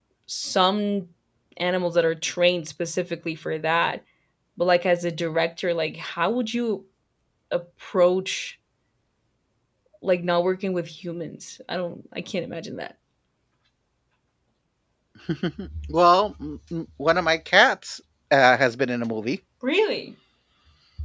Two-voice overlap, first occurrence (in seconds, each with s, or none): none